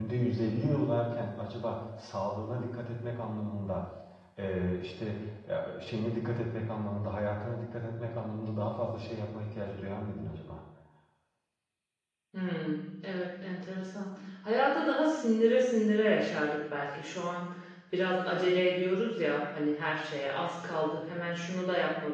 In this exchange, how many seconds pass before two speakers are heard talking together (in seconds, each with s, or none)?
none